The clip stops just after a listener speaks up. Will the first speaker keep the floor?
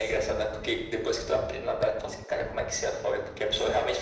Yes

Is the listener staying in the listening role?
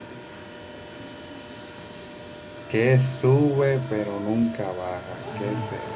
Yes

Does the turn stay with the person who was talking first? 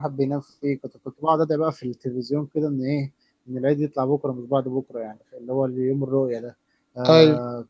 Yes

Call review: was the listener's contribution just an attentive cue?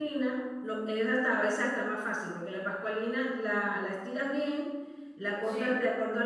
Yes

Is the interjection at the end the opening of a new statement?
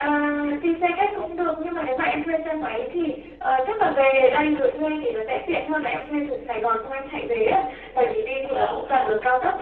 No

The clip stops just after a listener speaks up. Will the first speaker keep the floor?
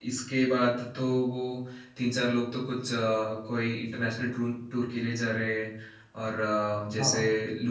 Yes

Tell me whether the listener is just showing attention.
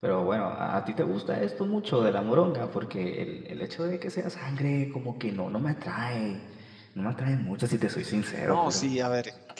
No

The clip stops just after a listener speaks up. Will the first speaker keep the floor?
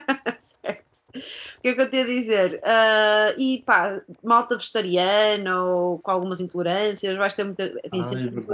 No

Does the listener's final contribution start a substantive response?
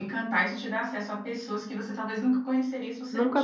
Yes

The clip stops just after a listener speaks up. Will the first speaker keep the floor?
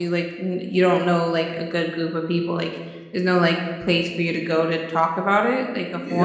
No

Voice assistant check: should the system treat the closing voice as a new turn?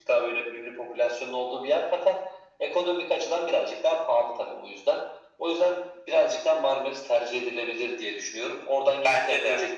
No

